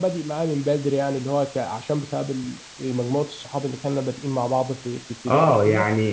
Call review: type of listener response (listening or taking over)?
taking over